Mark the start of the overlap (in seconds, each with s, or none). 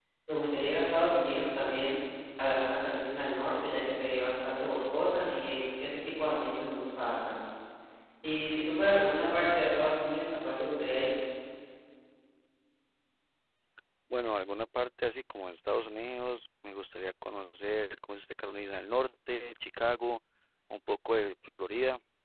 none